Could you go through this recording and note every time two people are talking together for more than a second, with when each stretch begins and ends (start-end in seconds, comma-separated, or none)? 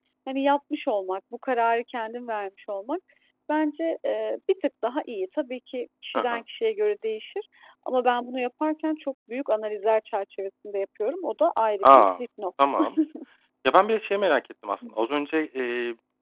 none